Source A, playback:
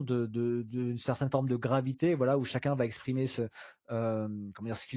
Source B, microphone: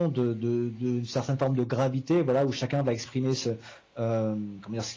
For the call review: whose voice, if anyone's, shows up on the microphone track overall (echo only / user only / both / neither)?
echo only